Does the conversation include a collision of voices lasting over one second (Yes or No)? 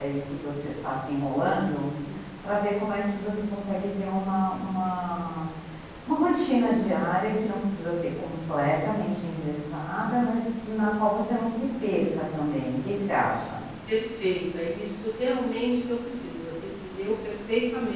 No